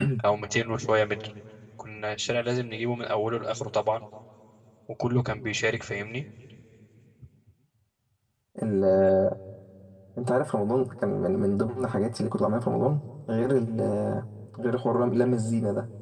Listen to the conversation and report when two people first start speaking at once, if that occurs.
none

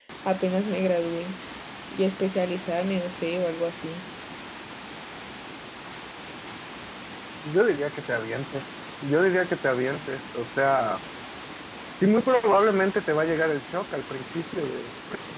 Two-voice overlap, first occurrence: none

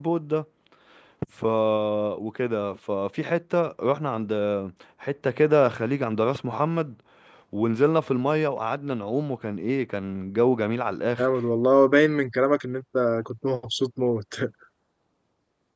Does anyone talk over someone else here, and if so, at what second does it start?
none

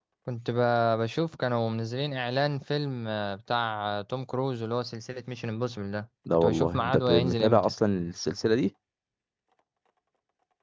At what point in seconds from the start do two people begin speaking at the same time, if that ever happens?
6.3 s

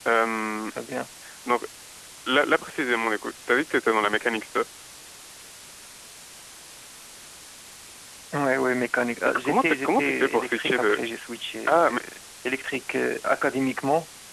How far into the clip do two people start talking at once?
9.3 s

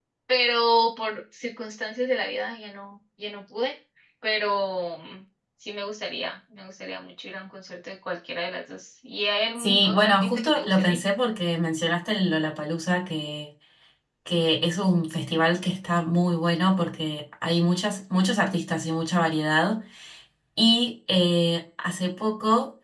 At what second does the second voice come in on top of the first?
9.6 s

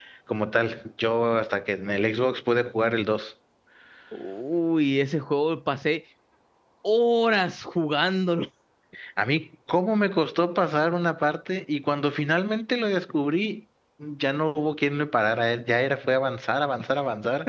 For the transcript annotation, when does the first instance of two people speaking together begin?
none

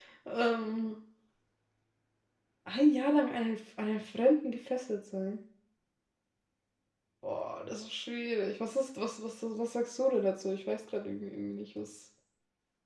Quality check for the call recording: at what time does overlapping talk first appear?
none

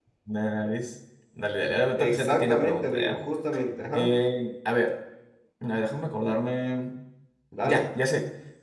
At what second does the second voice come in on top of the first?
2.0 s

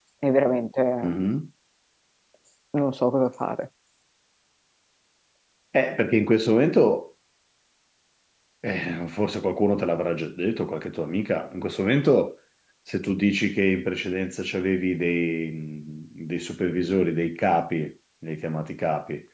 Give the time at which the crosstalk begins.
none

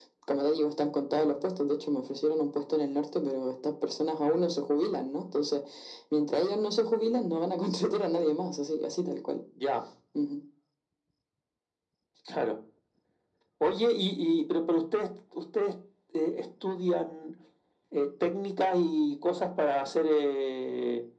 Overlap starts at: none

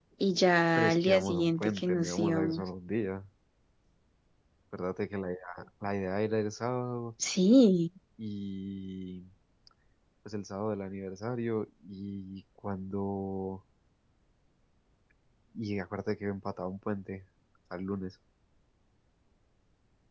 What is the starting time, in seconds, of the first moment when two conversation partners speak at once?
0.8 s

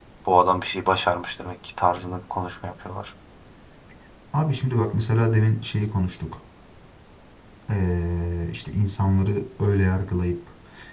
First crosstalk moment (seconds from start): none

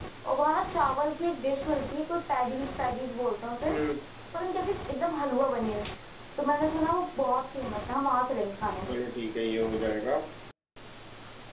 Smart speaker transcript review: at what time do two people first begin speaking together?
none

